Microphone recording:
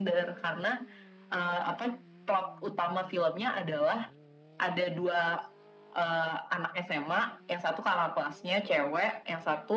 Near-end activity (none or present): none